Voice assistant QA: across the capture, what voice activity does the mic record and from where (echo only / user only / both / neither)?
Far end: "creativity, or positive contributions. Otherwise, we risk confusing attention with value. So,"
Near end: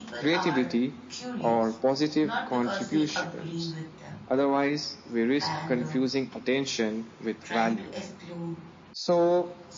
both